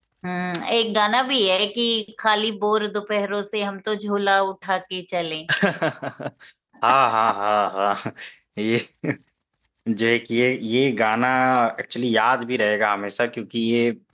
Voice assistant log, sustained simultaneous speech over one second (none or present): none